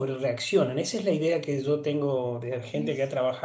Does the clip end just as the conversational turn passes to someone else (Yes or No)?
No